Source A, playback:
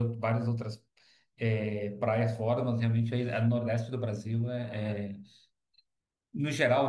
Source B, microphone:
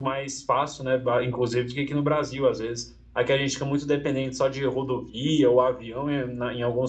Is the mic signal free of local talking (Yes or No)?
No